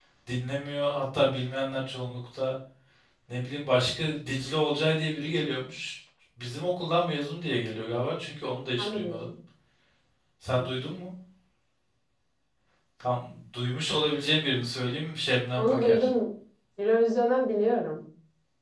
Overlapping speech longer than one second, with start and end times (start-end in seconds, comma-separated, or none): none